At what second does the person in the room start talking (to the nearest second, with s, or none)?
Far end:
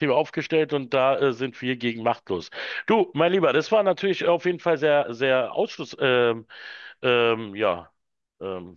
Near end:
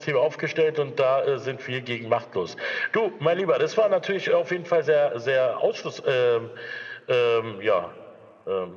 none